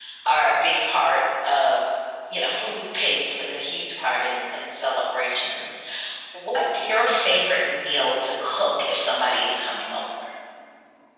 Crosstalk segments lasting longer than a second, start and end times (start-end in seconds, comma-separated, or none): none